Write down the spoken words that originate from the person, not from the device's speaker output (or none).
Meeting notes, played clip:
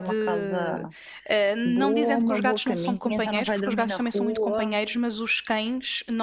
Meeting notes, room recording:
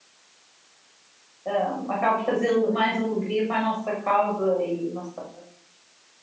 hum, acaba por trazer le- mais alegria para a nossa casa e não sei,